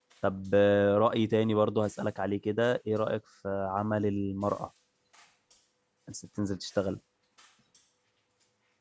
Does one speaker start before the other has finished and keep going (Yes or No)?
No